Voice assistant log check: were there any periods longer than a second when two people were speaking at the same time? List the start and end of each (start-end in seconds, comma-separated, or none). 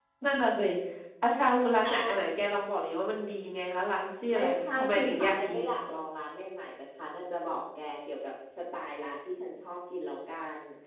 4.3-5.6